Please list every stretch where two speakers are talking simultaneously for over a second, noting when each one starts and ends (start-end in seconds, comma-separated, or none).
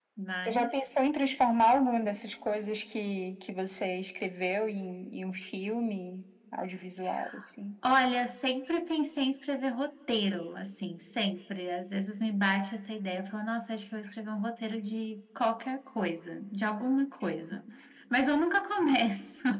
none